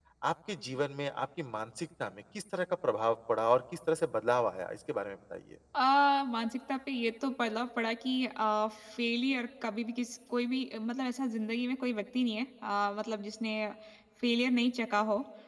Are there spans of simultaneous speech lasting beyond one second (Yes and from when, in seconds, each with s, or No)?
No